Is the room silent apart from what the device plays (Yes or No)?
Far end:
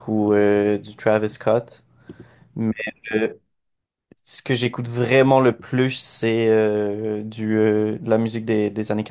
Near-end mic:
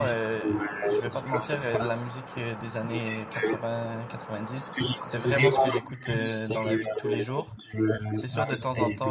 No